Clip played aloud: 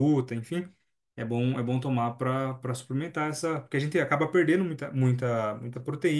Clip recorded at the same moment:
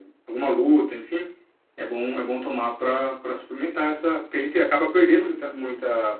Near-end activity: none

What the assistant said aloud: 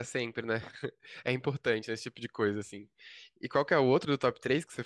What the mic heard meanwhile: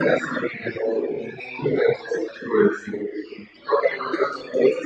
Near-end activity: none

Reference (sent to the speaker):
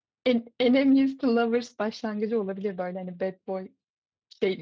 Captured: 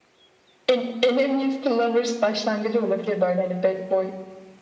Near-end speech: none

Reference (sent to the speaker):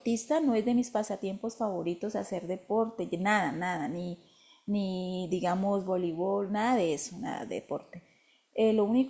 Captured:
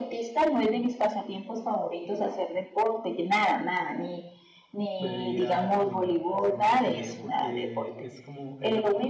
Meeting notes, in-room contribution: present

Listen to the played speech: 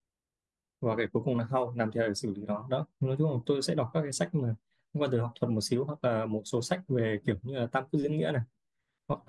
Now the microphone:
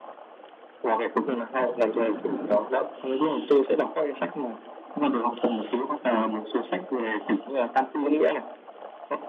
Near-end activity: none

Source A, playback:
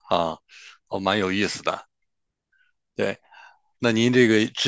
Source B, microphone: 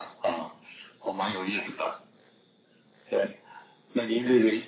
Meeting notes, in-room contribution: none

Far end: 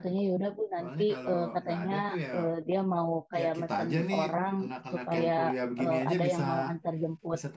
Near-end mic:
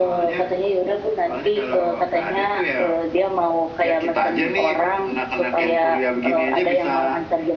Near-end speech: none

